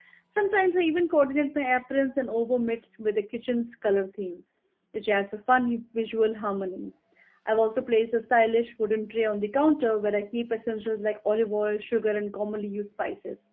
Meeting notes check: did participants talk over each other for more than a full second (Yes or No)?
No